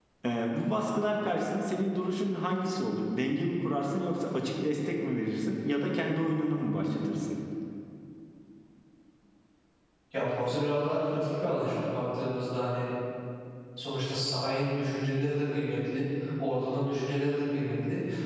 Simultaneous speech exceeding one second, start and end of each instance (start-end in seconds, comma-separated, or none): none